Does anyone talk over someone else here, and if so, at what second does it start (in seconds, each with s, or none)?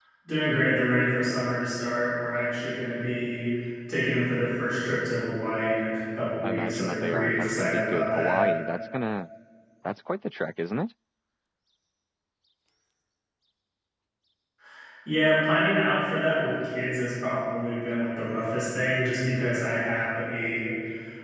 6.4 s